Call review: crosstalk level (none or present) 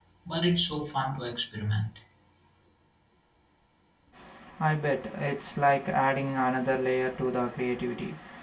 none